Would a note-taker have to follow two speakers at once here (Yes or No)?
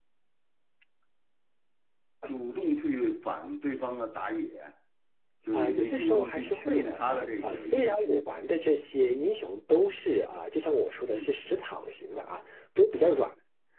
Yes